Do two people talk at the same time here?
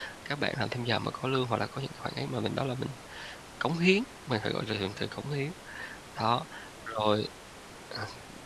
No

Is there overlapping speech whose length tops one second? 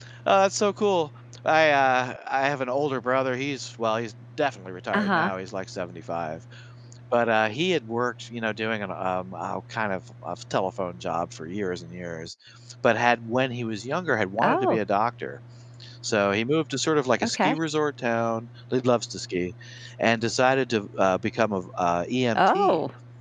No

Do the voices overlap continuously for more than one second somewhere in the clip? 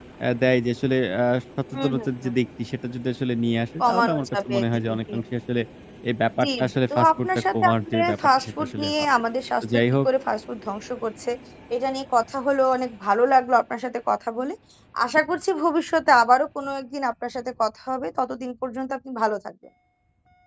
Yes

